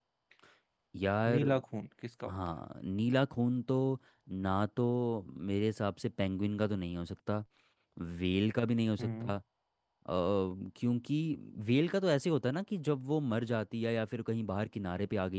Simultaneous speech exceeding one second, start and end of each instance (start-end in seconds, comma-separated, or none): none